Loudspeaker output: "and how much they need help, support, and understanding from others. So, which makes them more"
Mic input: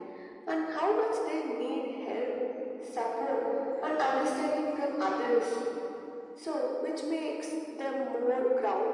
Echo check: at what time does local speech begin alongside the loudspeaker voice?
none

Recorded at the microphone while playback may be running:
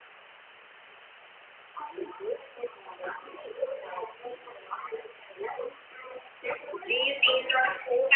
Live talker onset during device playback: 6.8 s

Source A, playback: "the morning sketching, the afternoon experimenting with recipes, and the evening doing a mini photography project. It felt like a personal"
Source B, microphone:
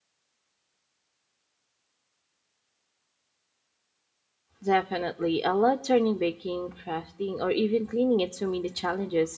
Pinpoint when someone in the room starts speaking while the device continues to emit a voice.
4.6 s

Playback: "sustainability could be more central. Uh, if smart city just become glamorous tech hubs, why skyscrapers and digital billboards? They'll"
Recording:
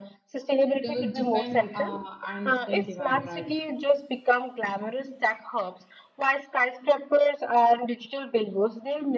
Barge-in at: 0.8 s

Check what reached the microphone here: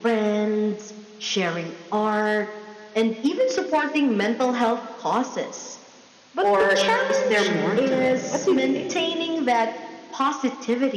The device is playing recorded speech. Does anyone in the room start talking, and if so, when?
6.4 s

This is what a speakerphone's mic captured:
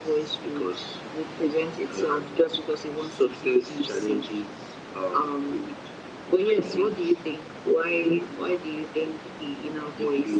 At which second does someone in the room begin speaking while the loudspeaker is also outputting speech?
none

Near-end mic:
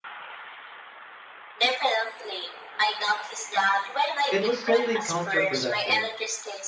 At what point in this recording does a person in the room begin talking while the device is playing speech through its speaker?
4.3 s

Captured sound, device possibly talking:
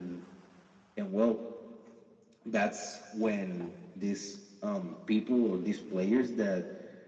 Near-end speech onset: none

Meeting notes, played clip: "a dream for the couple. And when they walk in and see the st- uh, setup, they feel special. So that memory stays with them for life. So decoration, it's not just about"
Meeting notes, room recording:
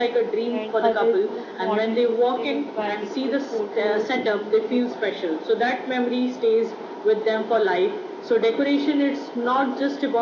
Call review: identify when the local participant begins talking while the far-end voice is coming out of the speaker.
0.5 s

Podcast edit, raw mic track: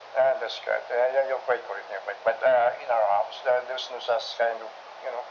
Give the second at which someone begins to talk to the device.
none

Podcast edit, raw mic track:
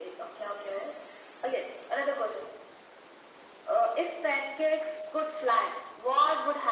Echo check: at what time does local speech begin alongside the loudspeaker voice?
none

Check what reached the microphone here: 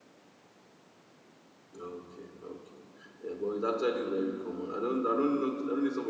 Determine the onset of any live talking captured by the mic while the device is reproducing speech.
1.8 s

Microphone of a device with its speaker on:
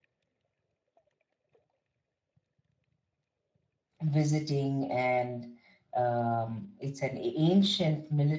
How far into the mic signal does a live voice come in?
4.0 s

